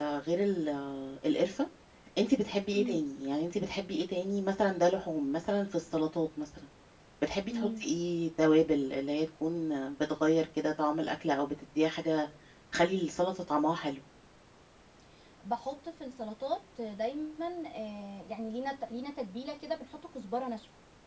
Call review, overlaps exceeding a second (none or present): none